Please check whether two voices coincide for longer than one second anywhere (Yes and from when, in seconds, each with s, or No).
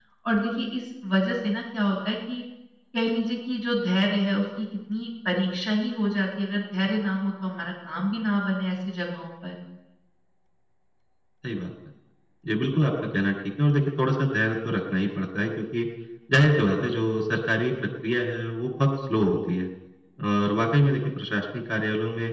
No